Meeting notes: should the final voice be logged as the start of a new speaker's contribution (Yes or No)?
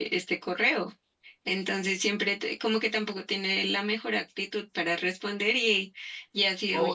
Yes